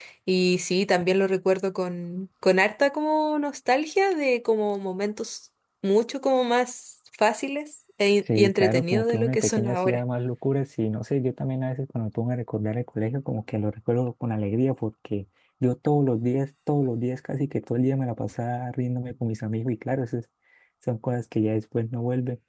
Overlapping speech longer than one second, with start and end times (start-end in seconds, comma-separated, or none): 8.4-10.0